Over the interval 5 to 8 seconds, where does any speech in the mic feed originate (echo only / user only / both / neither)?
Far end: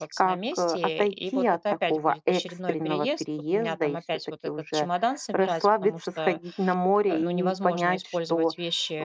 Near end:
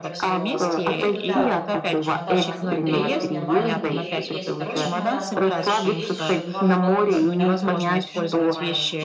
both